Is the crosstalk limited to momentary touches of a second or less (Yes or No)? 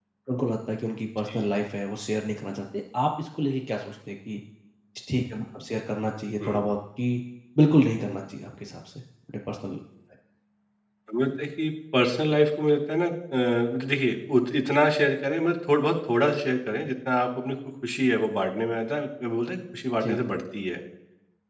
Yes